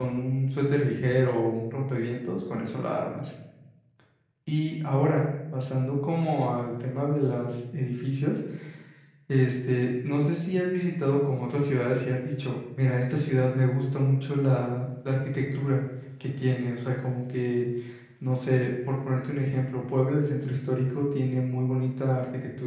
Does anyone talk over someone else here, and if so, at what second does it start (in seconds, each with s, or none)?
none